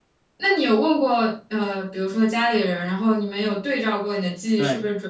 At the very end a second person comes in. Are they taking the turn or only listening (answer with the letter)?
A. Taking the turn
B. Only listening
A